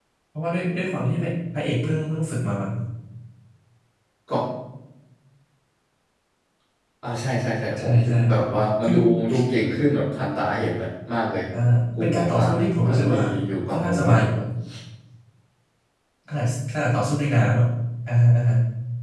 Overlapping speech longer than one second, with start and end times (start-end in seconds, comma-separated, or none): 12.0-13.2